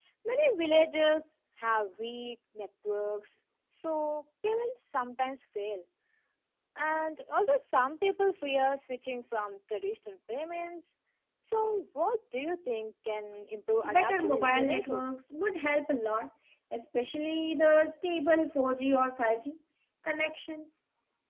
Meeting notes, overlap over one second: present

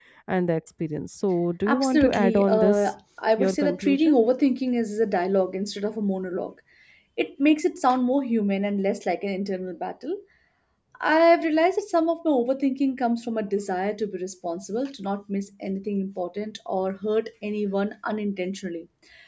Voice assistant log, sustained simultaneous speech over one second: present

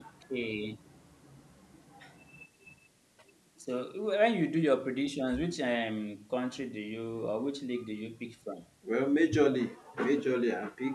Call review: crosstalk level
none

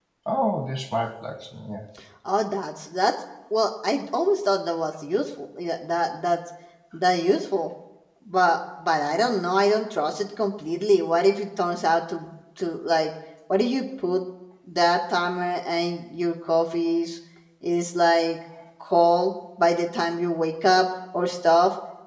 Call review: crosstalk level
none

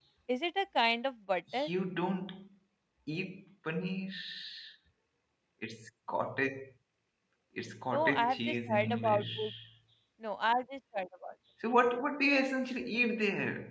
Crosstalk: present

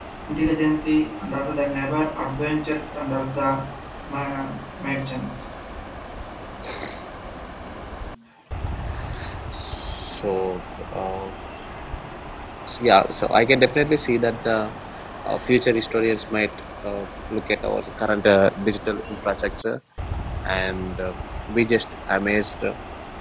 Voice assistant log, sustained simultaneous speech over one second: none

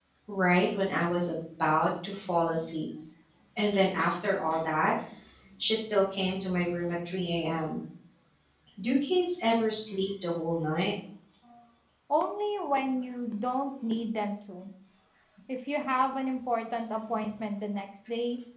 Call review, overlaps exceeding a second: none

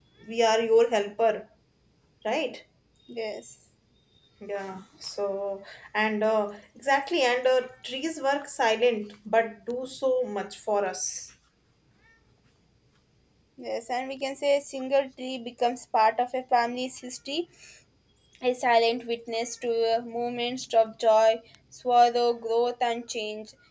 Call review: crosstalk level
none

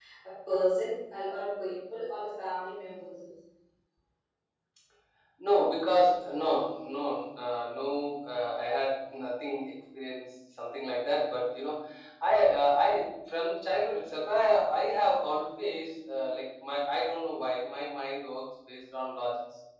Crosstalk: none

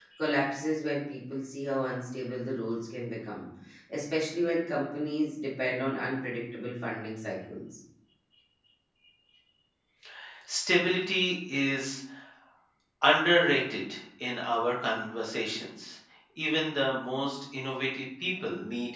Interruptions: none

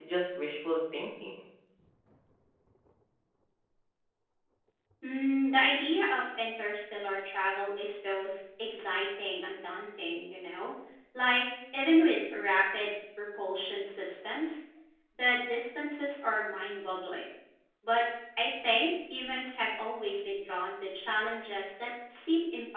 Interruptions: none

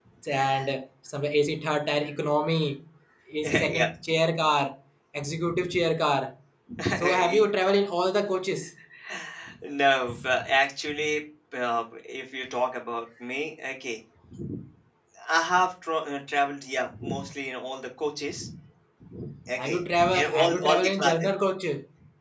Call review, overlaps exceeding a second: present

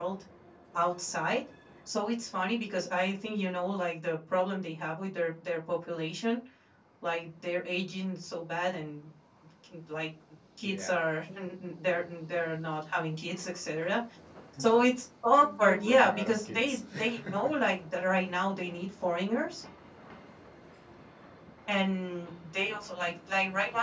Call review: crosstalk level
present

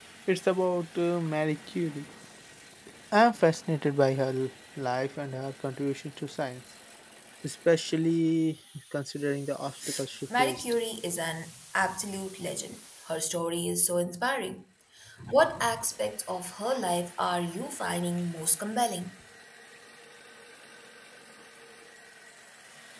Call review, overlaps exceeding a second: none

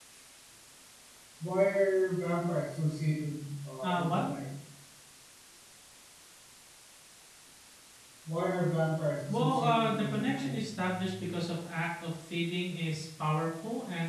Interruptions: present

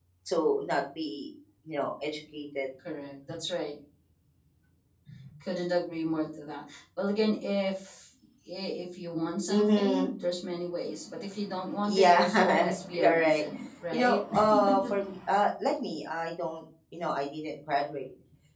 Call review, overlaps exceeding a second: present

